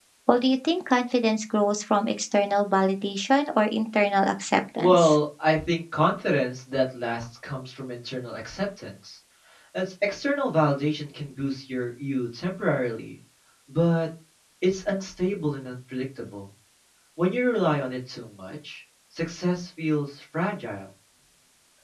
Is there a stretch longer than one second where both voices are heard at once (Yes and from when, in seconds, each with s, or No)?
No